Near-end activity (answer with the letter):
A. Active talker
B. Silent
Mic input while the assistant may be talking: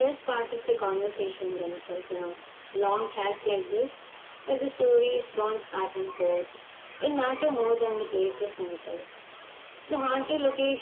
B